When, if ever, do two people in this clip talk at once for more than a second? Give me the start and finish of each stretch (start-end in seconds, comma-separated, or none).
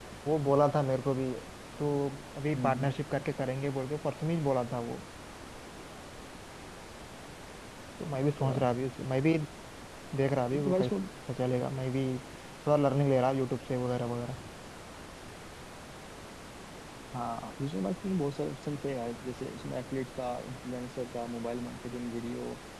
none